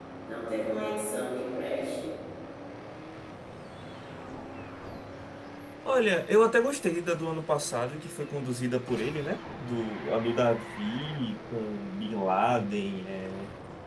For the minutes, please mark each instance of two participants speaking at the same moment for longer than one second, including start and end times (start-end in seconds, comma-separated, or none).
none